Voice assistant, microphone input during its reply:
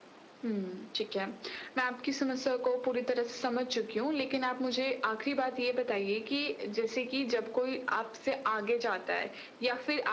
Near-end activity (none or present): none